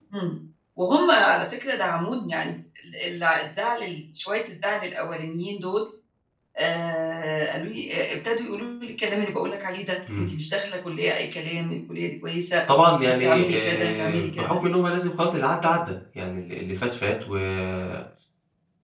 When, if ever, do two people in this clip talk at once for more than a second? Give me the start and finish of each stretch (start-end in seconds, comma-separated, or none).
13.2-14.6